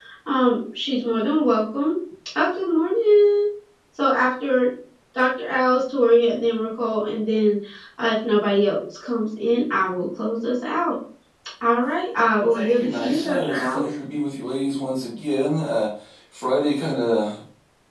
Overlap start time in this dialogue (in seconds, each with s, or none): 12.4 s